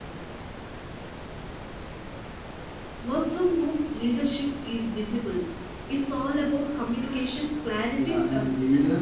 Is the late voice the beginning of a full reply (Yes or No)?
Yes